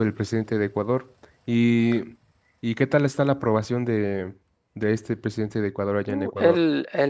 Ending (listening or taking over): taking over